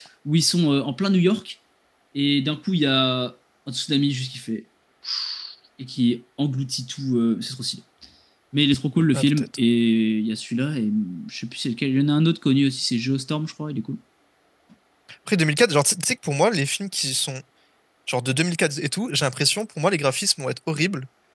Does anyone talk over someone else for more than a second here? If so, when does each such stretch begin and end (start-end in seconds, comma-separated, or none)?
none